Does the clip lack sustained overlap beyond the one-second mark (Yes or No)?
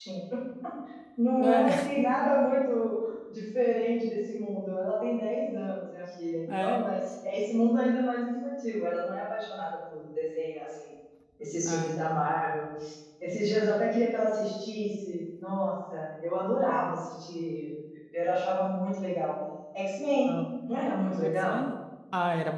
Yes